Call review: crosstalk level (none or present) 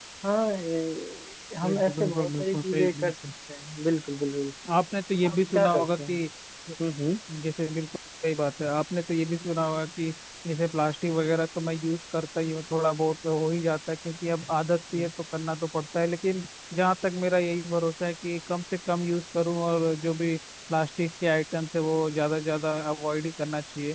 present